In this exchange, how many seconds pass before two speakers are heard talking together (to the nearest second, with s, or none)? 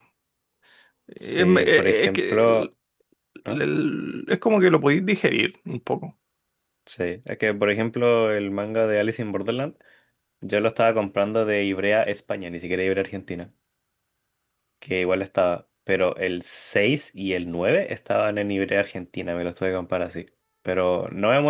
1 s